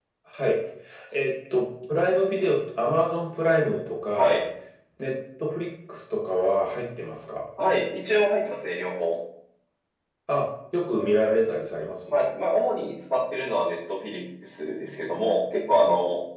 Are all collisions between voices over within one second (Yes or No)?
Yes